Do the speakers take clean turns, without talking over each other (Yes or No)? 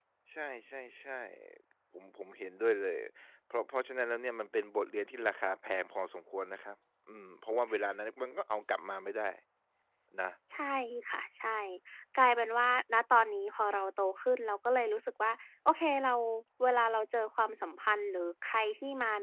Yes